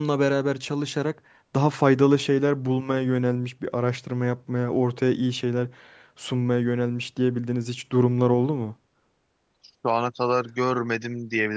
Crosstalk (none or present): none